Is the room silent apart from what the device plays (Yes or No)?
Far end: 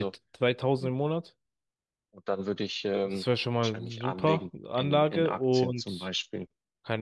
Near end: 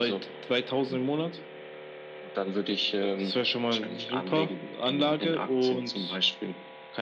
Yes